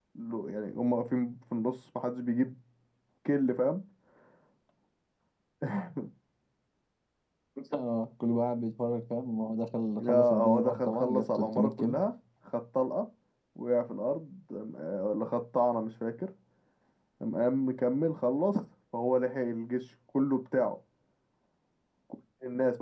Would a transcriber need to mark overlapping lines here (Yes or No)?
Yes